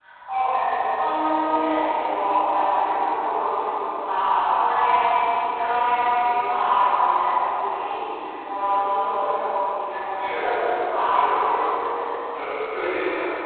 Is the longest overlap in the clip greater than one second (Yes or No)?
No